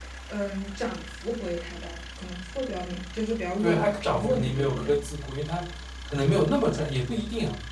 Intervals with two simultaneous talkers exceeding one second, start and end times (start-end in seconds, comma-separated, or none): 3.6-5.0